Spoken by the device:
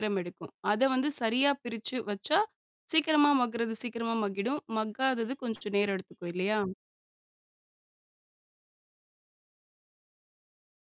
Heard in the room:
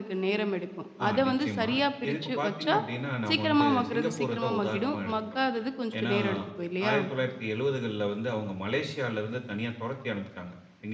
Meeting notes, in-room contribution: present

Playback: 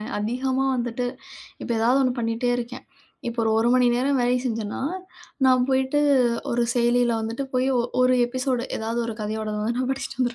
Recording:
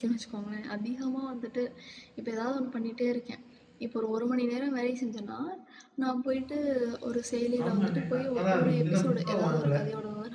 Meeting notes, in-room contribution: present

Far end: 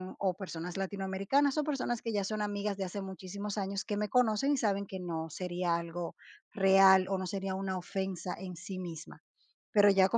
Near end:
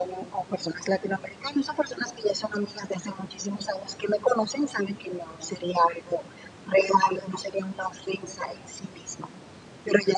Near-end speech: none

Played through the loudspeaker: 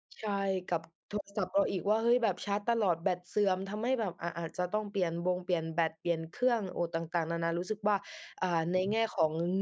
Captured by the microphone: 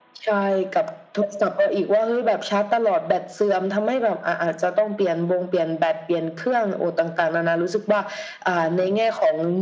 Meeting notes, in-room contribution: none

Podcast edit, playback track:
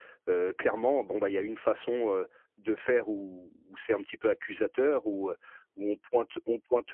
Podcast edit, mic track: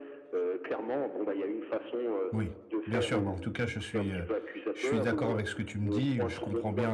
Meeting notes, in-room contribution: present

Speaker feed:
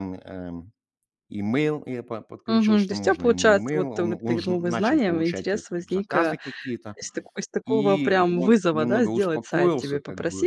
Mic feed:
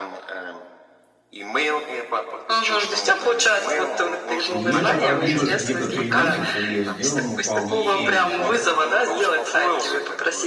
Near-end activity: present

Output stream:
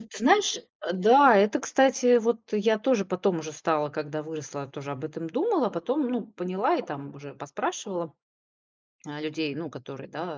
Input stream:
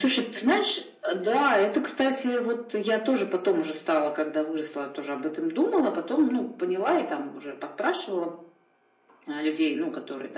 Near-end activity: none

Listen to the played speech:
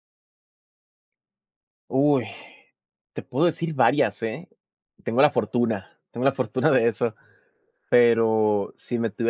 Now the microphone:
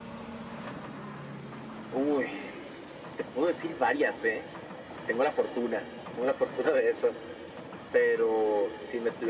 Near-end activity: none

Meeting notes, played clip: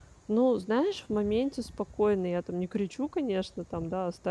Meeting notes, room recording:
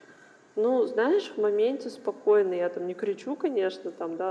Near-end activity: none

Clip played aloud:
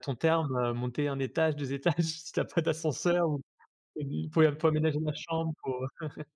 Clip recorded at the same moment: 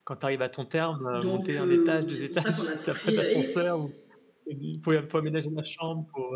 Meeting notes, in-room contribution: present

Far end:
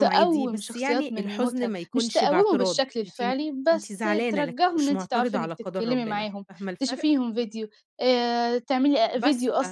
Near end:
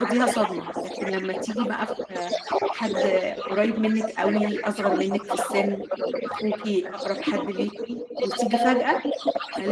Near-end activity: present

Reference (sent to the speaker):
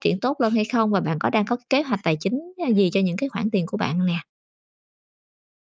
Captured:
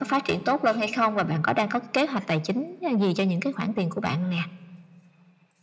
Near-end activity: none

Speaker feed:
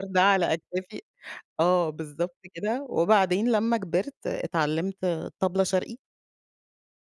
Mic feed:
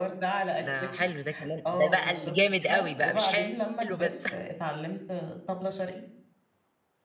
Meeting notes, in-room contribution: present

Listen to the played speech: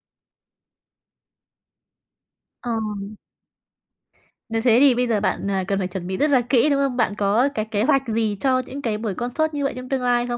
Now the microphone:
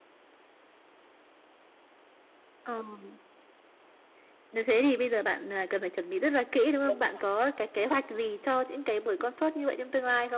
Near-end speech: present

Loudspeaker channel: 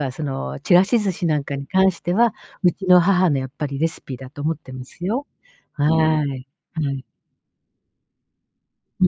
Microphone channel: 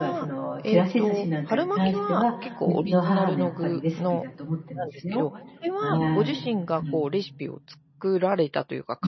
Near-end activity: present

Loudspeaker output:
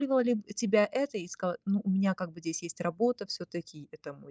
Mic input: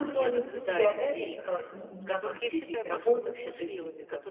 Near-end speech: present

